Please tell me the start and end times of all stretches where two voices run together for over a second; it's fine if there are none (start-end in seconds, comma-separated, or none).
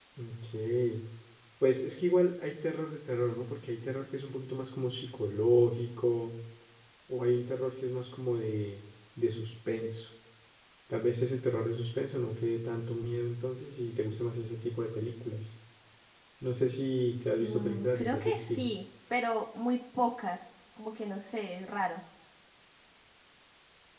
17.4-18.7